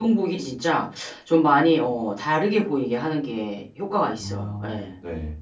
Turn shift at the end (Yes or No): Yes